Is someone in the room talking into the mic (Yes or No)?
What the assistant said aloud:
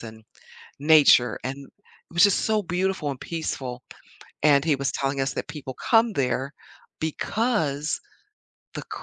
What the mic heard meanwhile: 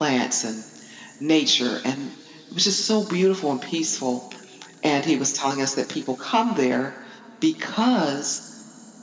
No